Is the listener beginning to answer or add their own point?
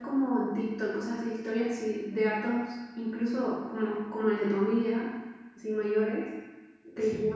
No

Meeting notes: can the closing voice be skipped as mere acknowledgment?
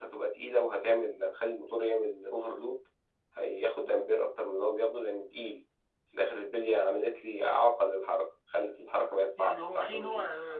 No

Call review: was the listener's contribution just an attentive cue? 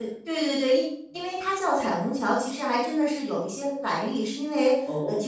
Yes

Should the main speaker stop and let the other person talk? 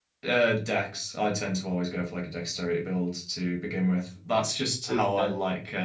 No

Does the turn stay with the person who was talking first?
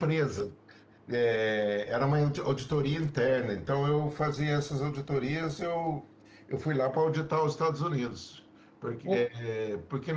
Yes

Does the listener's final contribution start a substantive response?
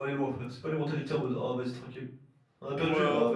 Yes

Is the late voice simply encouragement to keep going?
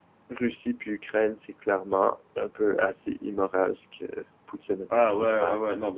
No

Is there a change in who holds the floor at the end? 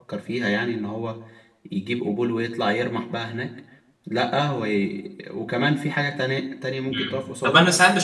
Yes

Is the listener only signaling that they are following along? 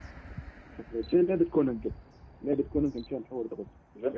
No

